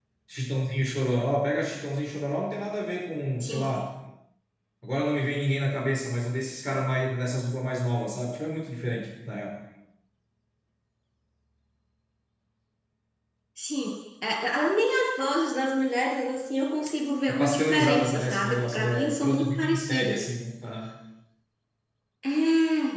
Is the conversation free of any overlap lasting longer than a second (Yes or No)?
No